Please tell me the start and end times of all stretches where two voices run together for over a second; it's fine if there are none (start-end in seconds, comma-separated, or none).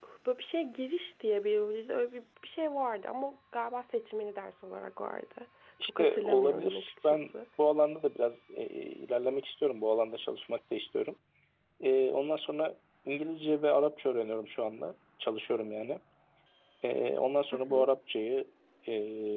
5.8-7.3